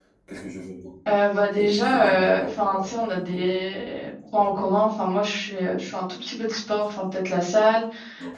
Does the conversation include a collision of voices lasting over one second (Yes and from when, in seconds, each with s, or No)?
Yes, from 1.5 s